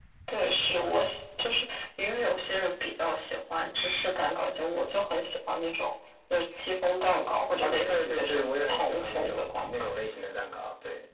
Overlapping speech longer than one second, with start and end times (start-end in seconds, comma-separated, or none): 7.6-9.9